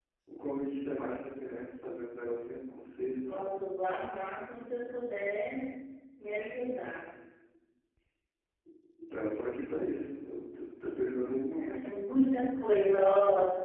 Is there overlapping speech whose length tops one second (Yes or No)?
No